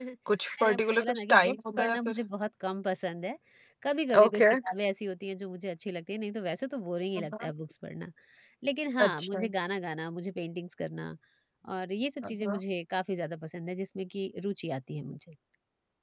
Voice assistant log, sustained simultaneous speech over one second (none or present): present